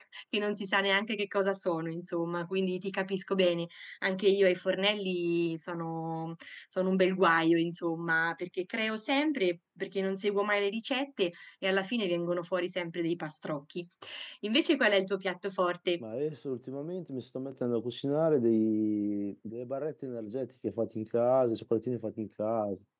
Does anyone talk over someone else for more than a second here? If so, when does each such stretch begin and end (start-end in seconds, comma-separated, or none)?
none